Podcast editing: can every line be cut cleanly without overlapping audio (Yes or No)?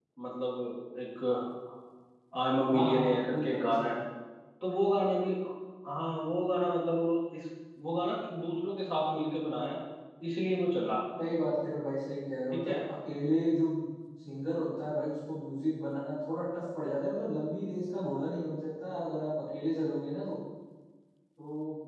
No